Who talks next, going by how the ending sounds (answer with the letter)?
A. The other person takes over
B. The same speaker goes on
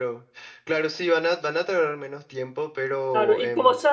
A